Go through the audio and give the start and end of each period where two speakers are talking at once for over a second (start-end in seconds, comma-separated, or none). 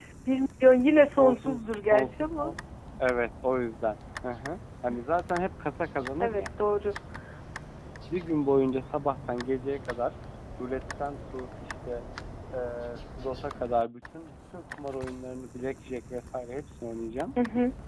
1.2-2.5